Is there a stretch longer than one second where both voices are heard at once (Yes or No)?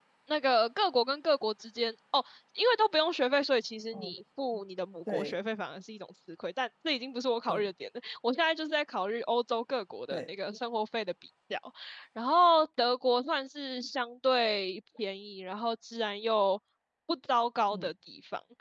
No